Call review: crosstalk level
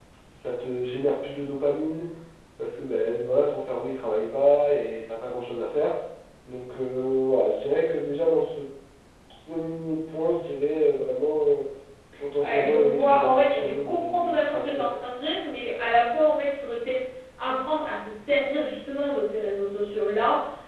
present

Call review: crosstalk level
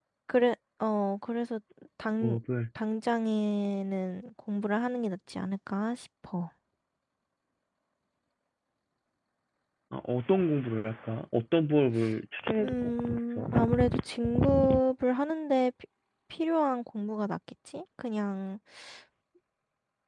present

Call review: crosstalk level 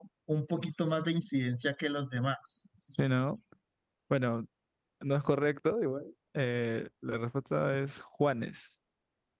none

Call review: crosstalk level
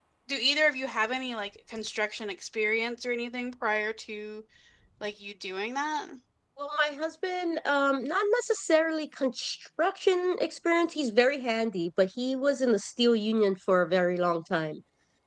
none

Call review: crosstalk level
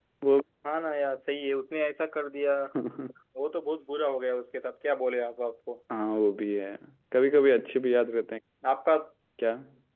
none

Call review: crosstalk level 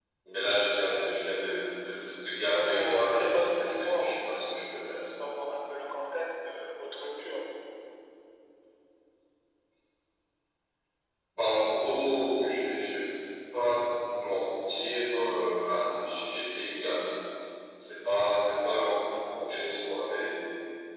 present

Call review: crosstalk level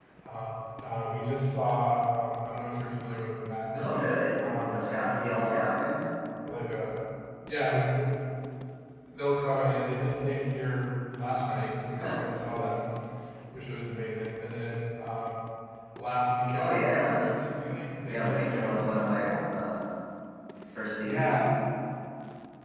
present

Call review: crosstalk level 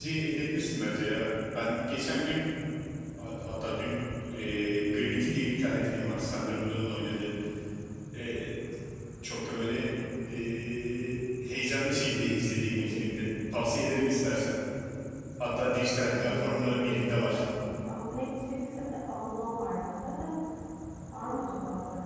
present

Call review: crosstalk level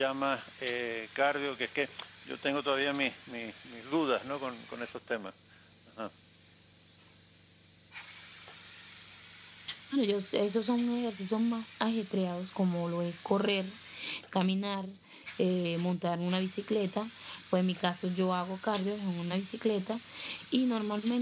none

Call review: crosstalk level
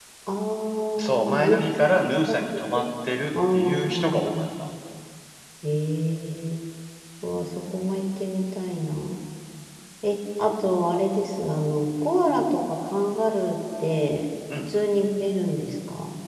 present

